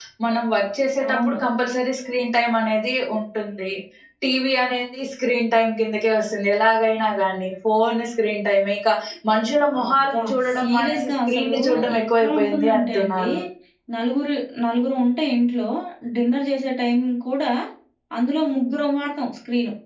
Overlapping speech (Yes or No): Yes